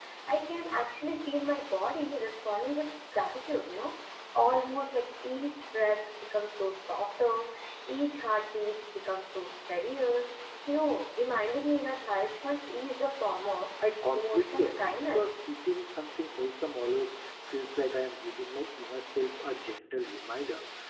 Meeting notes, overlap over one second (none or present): present